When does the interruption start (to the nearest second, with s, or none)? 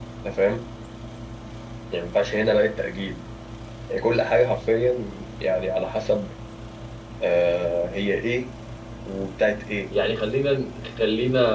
none